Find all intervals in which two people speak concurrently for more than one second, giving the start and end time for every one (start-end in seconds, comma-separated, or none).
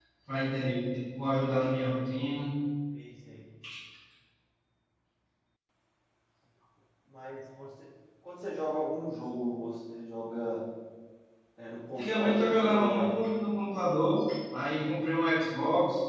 12.0-13.2